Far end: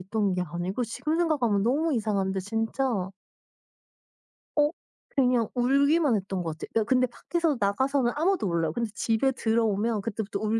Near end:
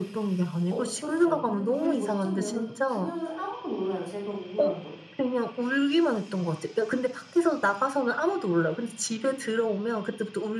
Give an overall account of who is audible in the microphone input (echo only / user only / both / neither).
both